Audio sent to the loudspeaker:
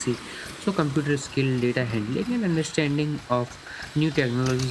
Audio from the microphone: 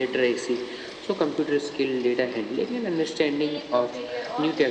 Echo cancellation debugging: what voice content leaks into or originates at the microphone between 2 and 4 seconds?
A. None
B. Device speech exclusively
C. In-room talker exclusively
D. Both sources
D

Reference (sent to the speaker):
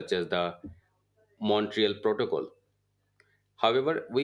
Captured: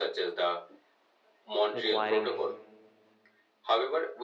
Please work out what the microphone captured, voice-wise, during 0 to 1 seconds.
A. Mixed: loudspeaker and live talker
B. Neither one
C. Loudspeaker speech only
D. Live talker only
C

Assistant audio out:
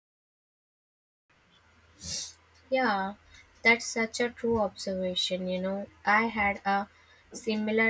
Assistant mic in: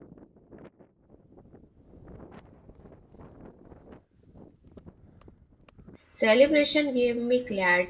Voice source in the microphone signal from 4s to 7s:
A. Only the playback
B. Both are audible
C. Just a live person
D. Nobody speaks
C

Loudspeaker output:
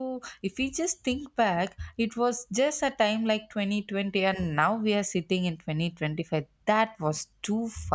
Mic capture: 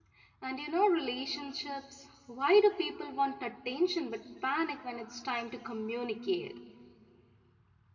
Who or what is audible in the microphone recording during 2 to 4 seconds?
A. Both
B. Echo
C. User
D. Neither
C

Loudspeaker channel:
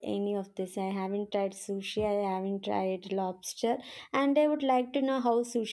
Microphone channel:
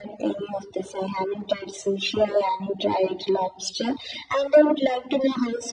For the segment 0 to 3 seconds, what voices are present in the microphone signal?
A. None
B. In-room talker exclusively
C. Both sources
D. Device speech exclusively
D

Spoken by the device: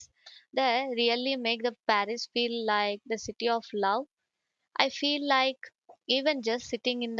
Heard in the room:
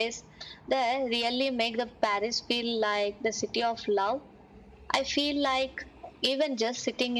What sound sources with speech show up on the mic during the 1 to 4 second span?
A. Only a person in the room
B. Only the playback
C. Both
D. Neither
B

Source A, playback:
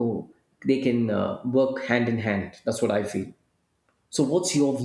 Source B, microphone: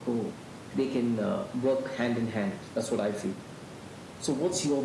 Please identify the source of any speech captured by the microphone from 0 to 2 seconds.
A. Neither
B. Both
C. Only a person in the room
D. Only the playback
D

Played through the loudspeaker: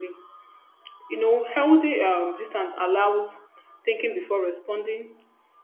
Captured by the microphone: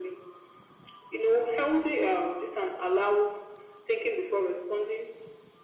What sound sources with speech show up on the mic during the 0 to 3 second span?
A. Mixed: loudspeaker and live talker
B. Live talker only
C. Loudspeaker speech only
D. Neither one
C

